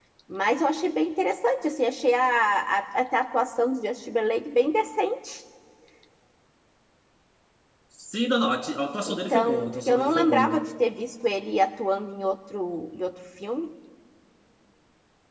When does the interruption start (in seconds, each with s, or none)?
9.1 s